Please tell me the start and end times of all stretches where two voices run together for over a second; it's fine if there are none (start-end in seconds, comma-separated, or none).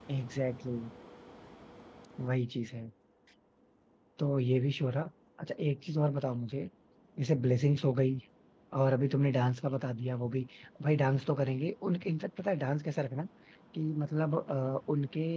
none